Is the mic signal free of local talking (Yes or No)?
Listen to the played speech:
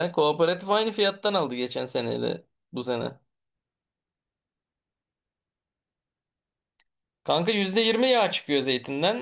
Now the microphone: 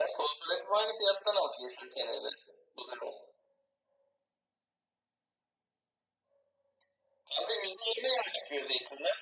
Yes